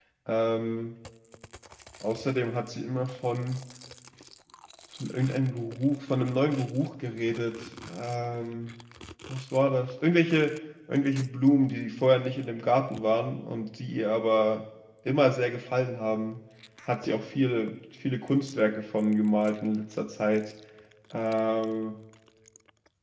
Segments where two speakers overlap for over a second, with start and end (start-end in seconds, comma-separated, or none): none